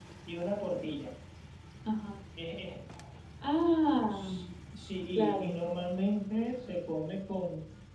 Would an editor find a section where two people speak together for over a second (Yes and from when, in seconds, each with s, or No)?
No